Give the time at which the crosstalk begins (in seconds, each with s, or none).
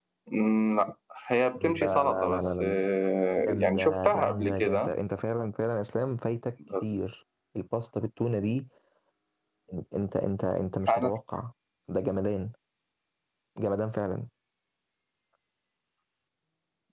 1.6 s